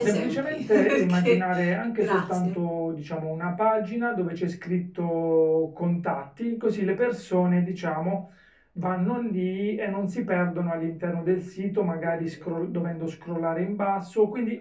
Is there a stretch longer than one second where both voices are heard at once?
Yes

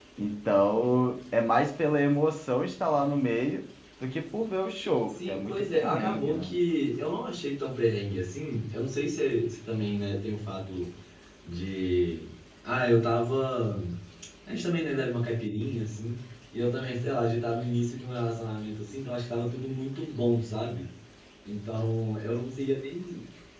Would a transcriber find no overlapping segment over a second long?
No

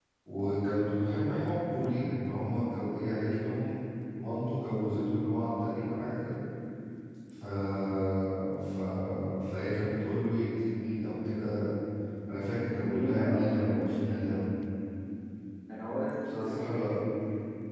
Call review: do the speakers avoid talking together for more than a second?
No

